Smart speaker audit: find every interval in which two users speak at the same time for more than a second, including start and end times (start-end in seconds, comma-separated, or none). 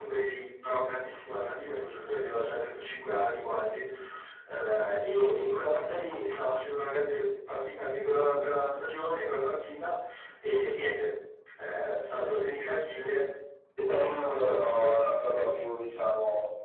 14.2-15.4